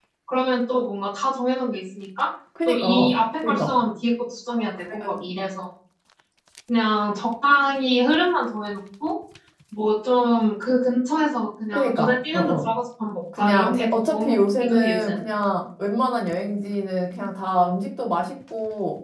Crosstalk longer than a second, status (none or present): present